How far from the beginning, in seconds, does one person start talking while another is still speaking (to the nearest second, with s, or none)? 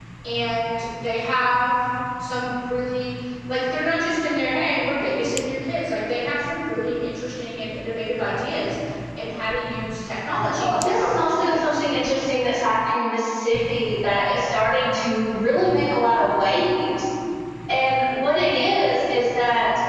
11 s